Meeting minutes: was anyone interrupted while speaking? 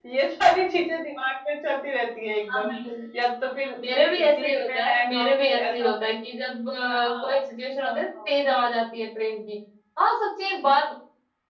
Yes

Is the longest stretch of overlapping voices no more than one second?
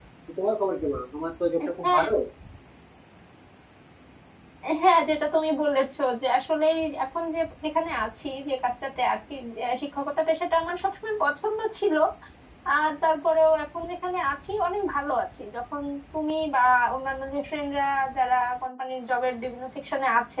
Yes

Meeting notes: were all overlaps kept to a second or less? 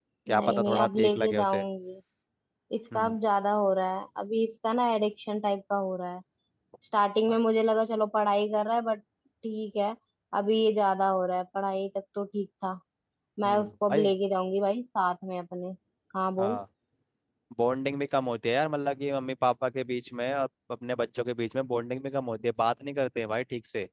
No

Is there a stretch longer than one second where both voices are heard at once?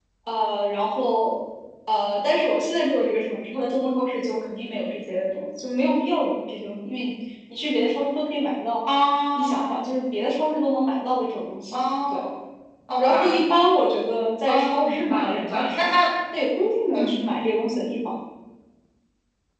Yes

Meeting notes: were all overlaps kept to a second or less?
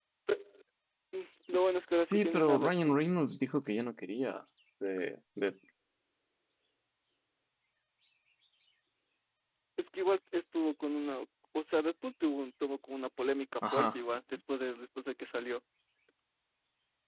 No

